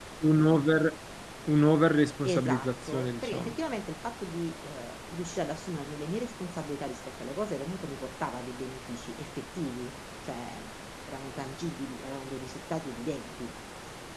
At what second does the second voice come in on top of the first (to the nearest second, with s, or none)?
2 s